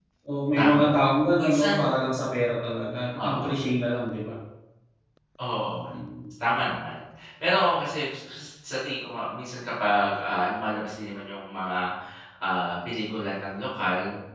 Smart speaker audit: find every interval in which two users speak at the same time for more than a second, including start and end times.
none

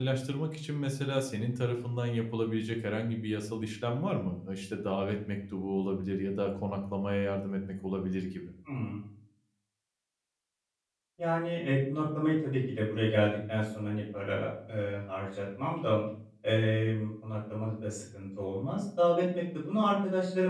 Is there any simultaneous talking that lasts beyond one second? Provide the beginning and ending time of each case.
none

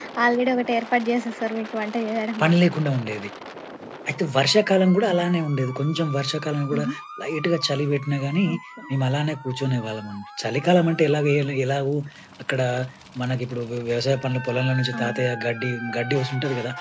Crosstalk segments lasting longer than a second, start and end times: none

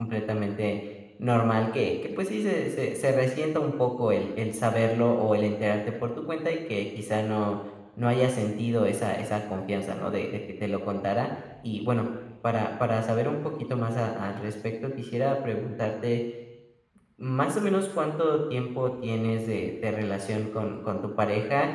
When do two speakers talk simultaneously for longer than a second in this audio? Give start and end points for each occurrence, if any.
none

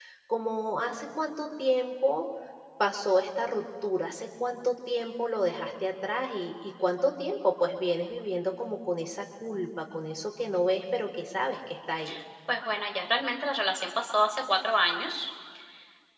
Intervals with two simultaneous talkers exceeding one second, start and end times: none

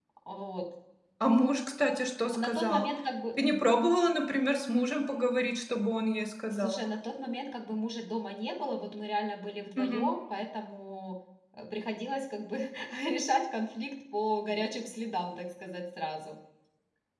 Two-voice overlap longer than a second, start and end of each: none

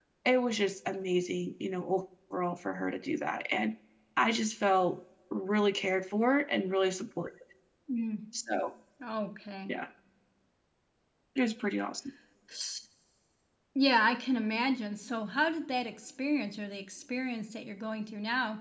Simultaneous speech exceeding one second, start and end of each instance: none

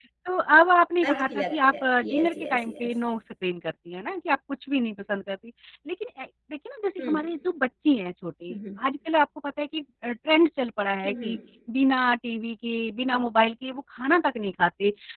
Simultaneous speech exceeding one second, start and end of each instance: 1.1-2.9

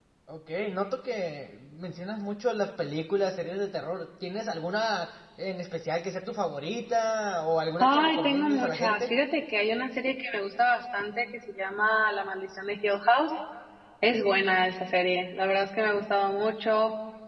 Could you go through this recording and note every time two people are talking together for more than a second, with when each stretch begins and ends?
7.8-9.0

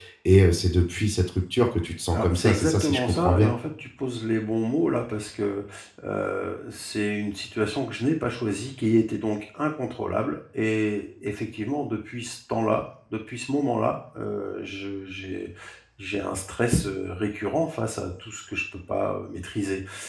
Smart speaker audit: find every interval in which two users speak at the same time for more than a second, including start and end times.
2.1-3.5

